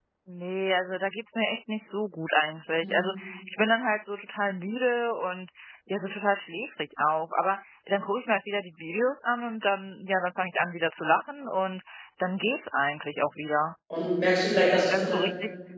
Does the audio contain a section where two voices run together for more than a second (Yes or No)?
No